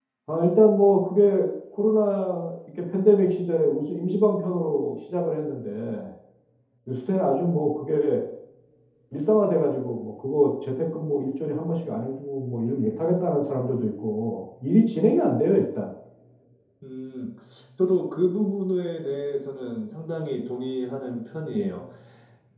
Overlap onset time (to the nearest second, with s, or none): none